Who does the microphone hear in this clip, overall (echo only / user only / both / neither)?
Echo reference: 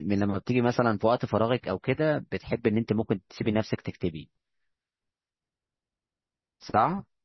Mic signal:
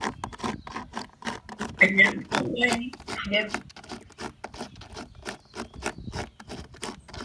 user only